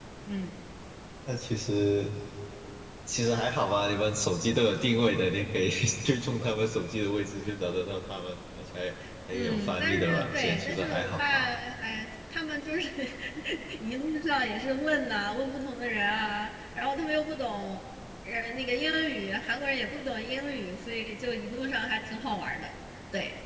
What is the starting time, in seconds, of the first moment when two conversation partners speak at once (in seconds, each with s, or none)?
9.3 s